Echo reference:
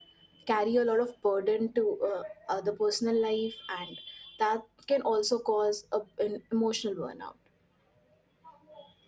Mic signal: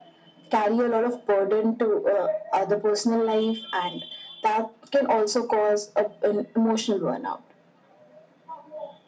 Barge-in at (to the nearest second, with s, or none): none